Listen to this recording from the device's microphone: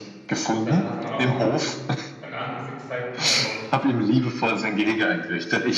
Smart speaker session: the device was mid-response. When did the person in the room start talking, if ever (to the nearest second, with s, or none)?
1 s